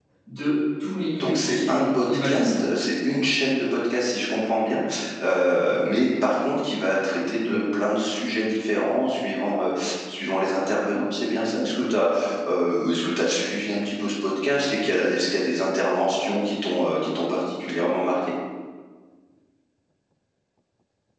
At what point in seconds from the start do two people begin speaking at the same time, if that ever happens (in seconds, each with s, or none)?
1.2 s